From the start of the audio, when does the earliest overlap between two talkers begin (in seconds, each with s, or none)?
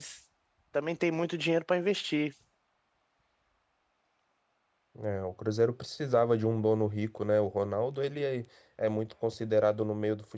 none